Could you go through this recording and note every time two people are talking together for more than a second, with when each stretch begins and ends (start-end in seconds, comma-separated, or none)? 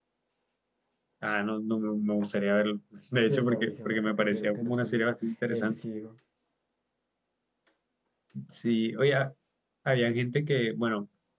3.3-5.0